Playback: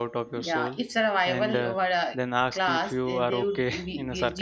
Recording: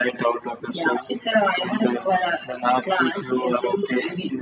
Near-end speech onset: none

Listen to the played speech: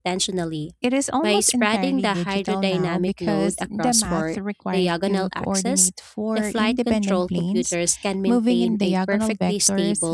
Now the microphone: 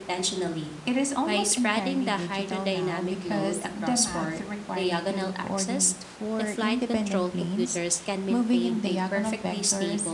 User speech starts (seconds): none

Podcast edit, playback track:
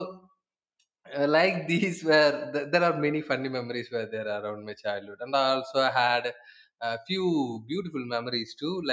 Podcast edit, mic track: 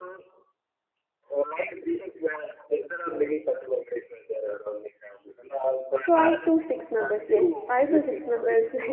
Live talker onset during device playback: 6.1 s

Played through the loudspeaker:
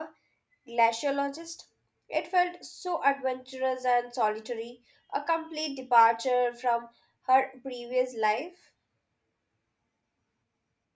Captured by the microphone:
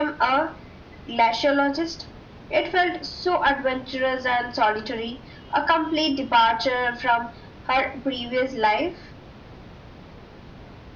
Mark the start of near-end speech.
none

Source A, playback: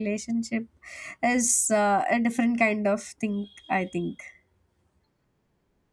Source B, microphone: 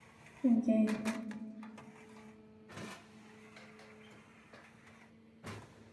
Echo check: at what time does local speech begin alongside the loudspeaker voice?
0.4 s

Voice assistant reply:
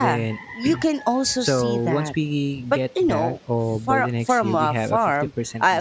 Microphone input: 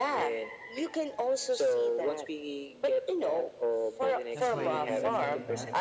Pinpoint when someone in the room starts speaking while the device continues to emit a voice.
4.3 s

